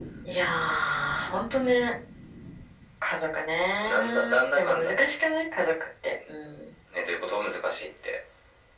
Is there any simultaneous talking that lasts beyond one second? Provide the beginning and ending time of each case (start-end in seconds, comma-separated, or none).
3.8-5.1